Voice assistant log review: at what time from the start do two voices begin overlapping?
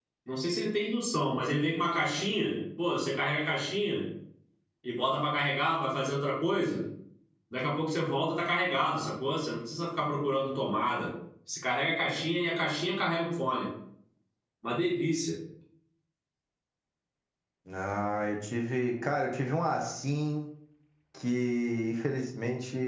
none

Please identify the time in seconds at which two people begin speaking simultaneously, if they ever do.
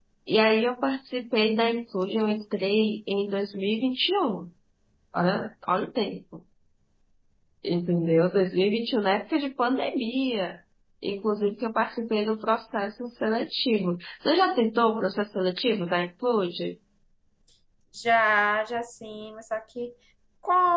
none

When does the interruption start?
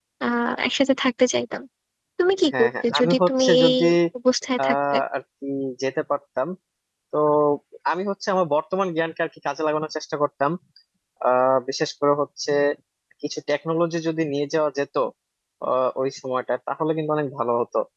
2.5 s

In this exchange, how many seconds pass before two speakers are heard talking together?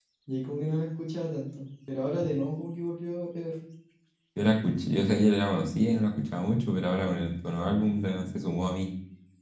none

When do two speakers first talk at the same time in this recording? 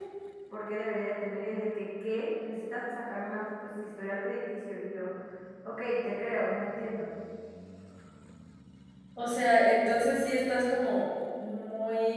none

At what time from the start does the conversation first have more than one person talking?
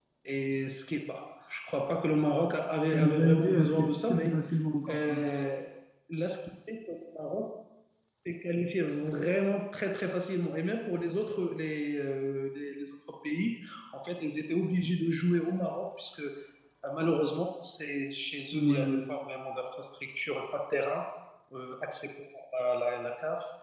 2.9 s

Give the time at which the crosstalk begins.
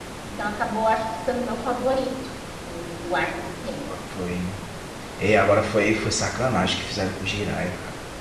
none

